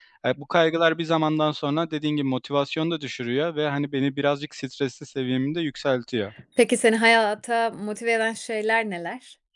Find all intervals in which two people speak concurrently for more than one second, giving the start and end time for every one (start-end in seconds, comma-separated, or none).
none